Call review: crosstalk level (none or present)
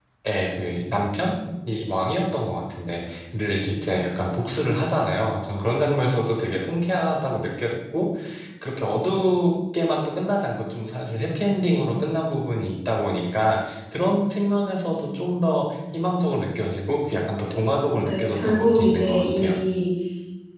present